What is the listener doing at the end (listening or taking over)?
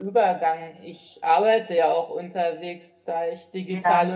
listening